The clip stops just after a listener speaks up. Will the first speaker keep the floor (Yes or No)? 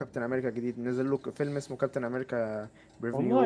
No